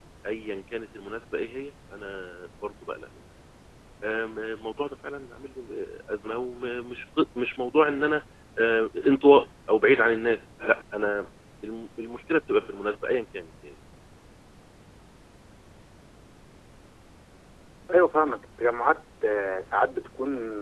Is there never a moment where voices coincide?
Yes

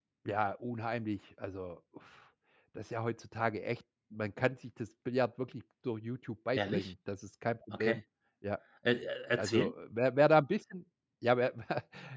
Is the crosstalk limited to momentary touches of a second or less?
Yes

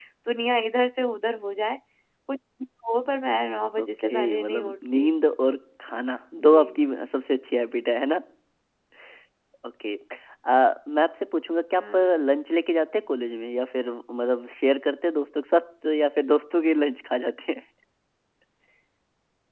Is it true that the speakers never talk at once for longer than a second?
No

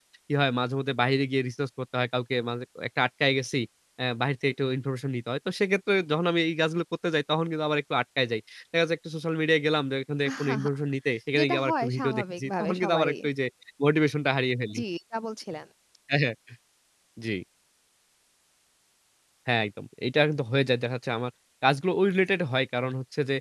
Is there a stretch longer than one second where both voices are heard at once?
Yes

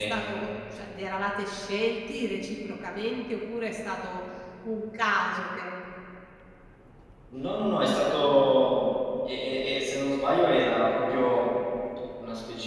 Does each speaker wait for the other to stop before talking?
Yes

